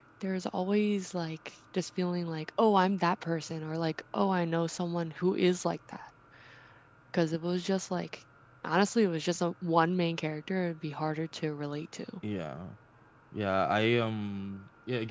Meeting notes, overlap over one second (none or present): none